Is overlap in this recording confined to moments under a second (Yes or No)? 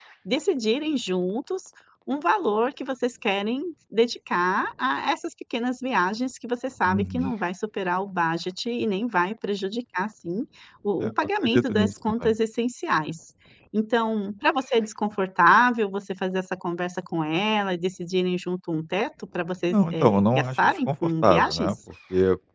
No